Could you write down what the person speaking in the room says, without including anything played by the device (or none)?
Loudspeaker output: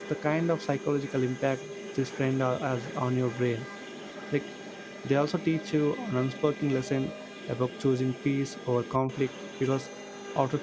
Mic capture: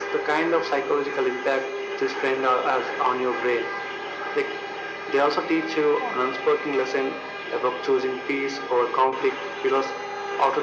none